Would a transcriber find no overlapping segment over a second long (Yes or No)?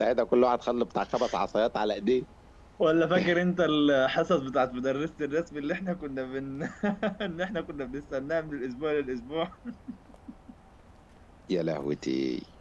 Yes